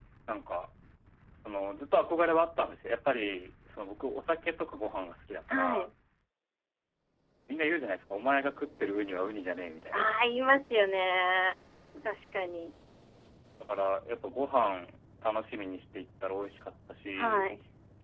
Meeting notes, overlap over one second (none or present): none